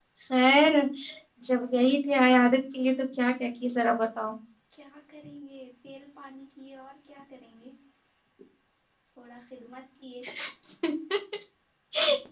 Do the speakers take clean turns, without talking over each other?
Yes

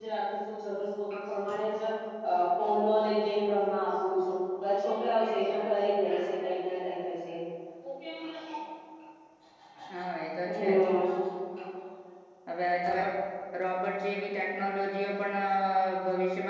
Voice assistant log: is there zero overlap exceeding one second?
Yes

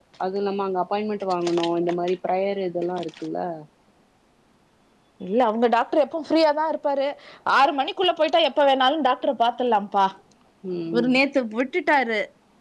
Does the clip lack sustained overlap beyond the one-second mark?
Yes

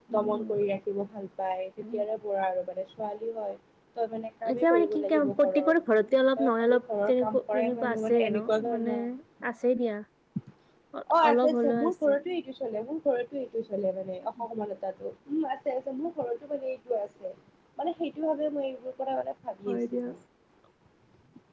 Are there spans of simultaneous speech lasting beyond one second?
Yes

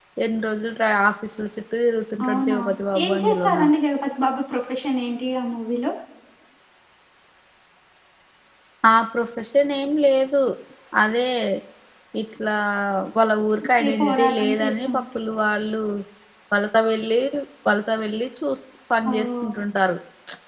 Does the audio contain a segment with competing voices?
Yes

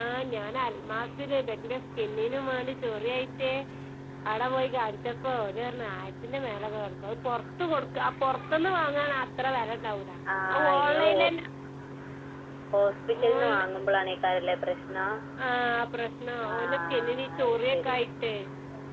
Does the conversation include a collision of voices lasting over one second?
Yes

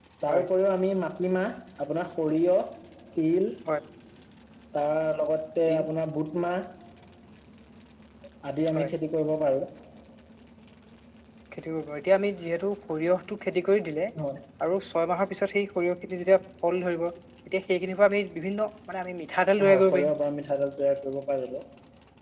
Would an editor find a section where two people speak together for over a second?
No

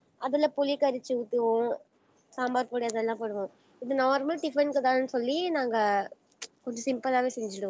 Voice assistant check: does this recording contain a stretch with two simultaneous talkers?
No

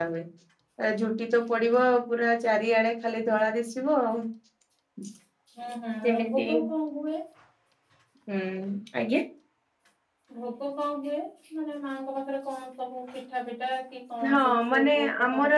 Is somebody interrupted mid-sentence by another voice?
Yes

